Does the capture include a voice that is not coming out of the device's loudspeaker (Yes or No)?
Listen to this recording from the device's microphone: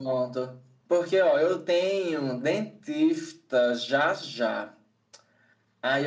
No